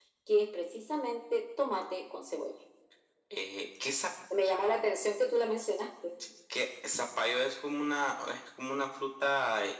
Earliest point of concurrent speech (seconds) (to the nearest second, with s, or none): none